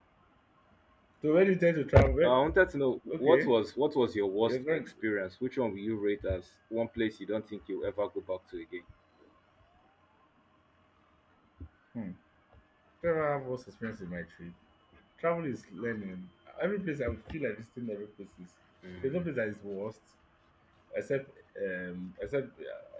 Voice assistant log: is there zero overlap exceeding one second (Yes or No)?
Yes